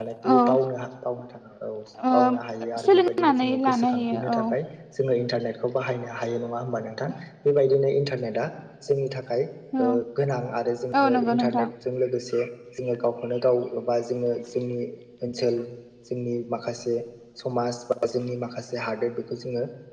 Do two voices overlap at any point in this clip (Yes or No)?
Yes